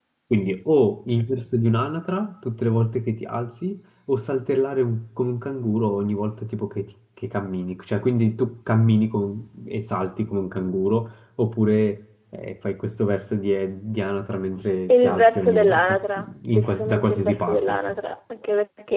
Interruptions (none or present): present